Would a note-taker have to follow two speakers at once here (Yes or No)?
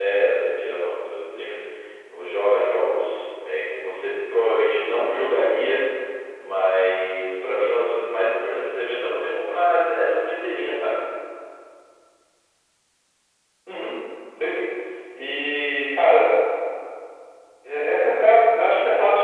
No